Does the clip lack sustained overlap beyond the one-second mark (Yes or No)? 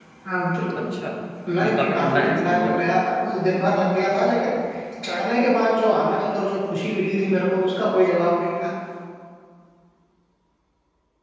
No